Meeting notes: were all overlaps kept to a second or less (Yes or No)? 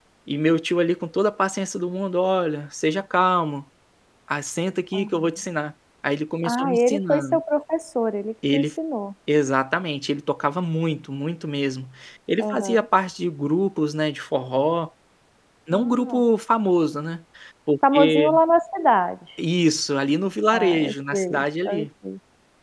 No